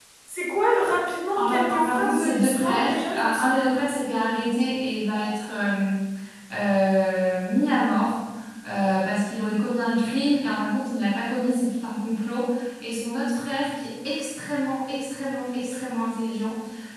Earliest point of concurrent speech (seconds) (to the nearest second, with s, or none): 1 s